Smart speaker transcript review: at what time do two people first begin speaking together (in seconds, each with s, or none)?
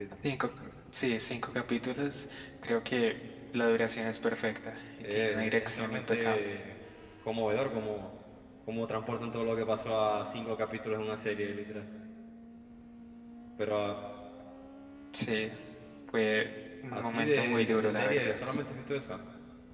5.1 s